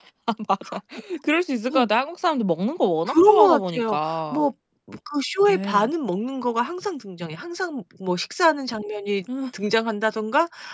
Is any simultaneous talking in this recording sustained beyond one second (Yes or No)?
Yes